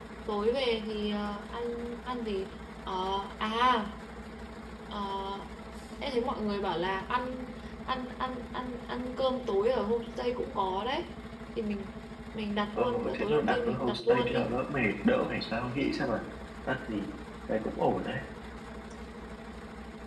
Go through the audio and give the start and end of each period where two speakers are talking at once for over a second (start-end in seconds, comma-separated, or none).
12.8-14.5